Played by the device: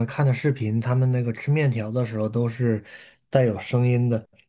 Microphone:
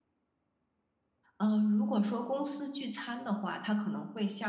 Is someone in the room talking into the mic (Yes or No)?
Yes